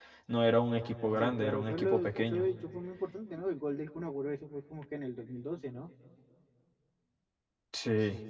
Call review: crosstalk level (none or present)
present